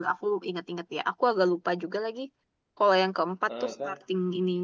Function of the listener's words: listening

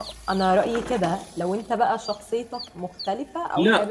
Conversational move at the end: taking over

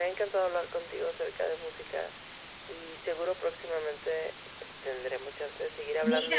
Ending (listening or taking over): taking over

